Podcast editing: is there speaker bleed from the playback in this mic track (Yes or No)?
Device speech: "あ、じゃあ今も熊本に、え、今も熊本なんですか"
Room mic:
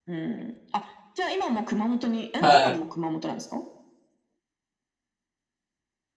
Yes